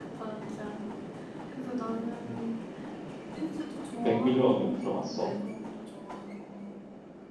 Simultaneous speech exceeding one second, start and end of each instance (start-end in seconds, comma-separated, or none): 4.0-5.3